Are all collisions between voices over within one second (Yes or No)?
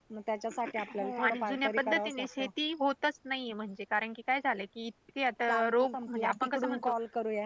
No